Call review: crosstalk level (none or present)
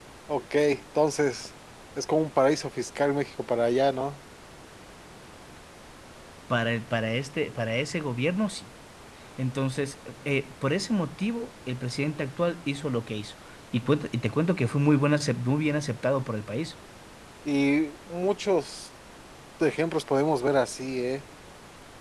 none